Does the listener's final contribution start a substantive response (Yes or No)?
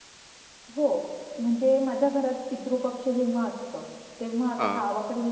No